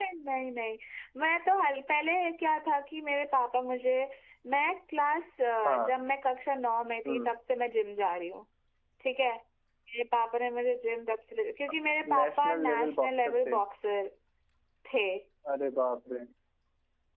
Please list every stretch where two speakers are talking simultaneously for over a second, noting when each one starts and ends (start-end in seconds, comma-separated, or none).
12.2-13.6